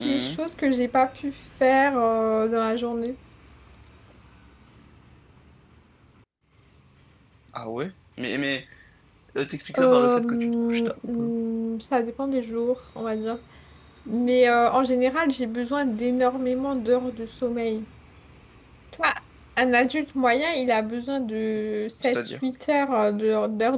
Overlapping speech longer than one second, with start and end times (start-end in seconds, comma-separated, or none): 9.8-11.3